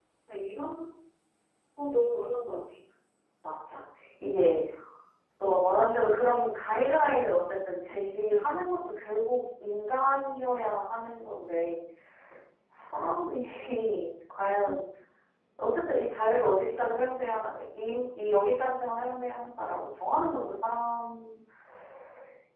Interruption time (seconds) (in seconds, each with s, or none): none